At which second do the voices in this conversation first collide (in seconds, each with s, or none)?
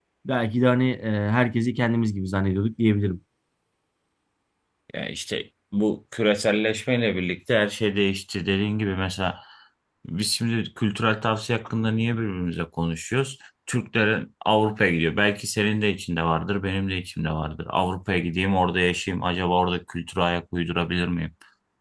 none